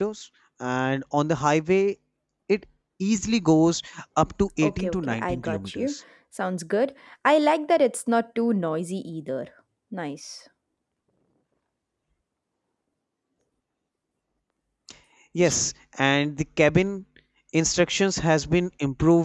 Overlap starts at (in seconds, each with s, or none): 4.6 s